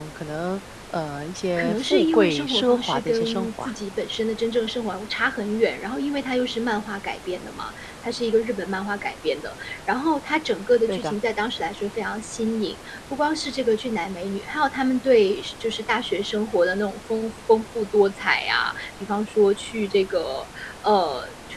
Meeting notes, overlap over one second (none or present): present